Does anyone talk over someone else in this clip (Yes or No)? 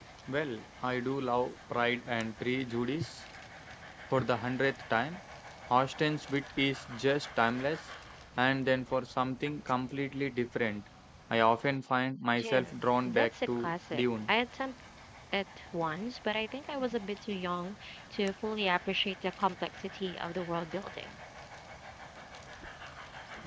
Yes